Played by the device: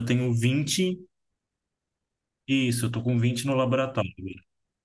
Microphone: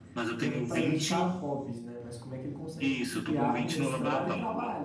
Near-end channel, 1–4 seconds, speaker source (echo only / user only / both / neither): both